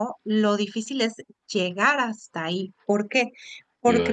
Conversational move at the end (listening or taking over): listening